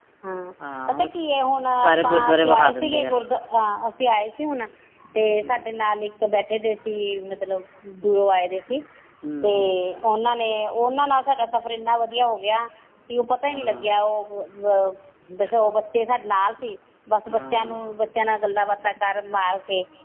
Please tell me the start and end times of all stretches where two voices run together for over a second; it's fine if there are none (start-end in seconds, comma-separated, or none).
1.8-3.1